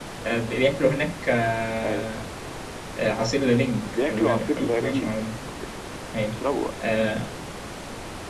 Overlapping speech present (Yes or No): Yes